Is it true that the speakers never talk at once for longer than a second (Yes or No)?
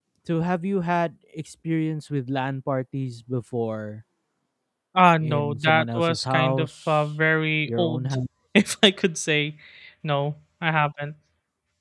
No